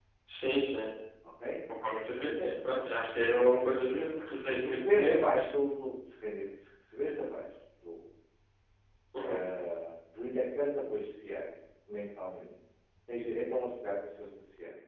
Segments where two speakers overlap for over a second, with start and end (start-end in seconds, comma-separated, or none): 3.6-5.2